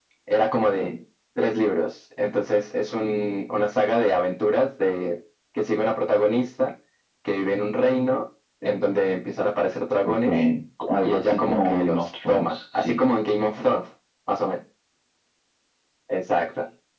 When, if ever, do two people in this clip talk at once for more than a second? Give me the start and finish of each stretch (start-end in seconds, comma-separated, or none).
11.0-13.1